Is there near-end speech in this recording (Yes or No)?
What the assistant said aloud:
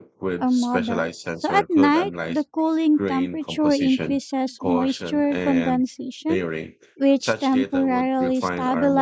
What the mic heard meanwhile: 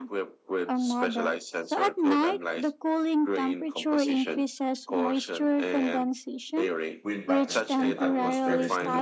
Yes